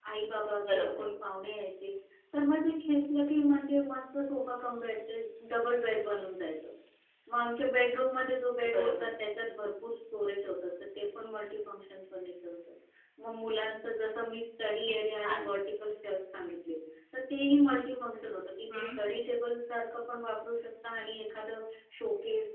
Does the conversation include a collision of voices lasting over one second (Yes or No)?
No